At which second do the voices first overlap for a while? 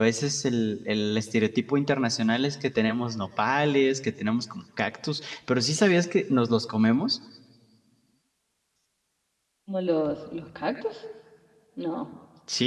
none

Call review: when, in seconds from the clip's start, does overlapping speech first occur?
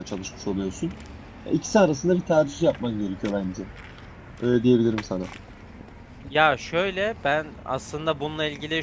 none

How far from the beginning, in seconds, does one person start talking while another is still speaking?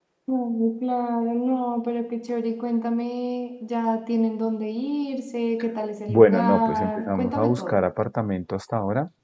6 s

